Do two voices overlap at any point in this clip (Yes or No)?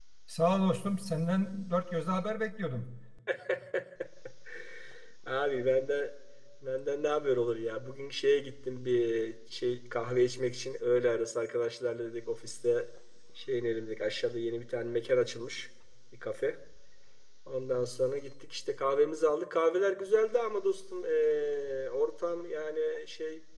No